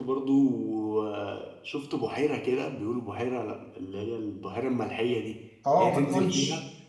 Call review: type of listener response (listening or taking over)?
taking over